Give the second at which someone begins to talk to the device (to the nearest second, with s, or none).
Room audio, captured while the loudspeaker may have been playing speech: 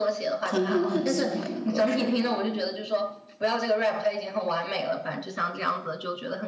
0 s